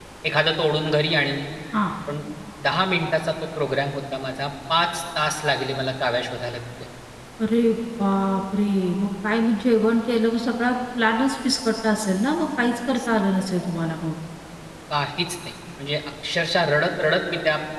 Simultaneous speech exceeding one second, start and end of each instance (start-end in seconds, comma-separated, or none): none